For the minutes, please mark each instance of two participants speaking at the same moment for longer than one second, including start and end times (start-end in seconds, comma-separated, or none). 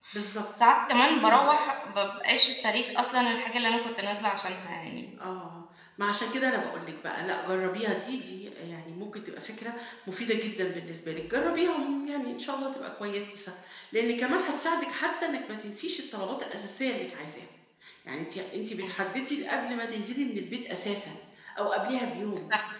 none